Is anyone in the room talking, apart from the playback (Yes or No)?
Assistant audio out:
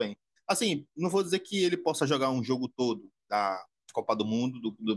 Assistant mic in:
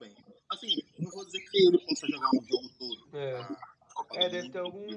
Yes